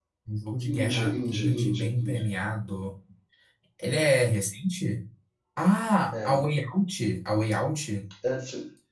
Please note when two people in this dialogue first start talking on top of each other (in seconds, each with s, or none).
0.7 s